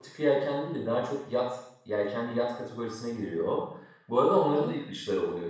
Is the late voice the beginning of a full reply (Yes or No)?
No